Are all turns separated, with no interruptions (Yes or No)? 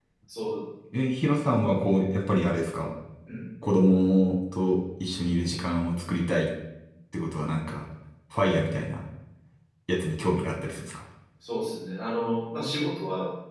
Yes